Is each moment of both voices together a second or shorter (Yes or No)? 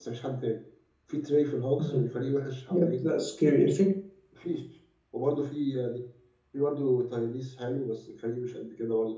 Yes